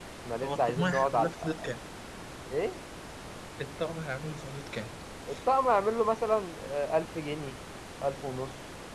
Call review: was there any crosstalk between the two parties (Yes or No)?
Yes